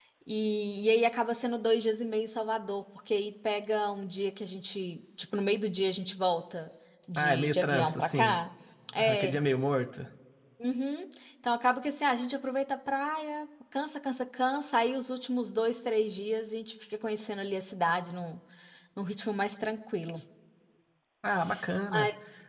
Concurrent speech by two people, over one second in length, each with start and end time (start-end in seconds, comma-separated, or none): 7.2-8.4